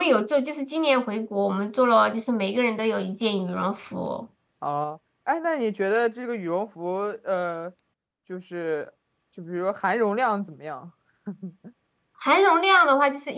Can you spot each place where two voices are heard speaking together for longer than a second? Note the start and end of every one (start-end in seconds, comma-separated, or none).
none